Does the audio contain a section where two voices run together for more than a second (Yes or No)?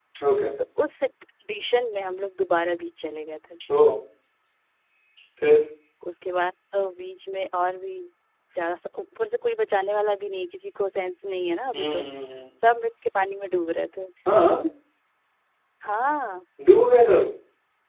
No